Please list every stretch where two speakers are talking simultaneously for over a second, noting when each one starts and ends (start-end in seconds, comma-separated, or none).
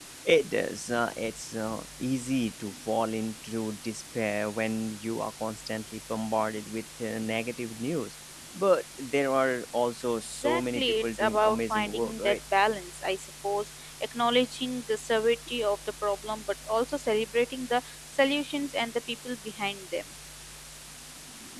10.4-12.4